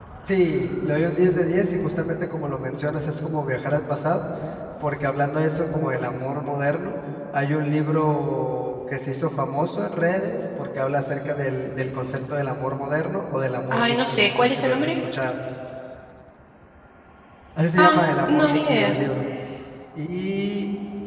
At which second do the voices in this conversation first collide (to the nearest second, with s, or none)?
14 s